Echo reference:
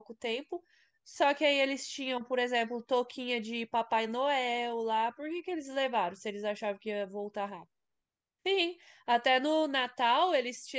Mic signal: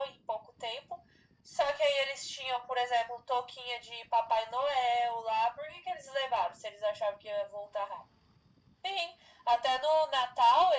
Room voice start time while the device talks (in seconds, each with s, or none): none